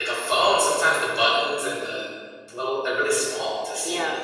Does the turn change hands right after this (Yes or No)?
Yes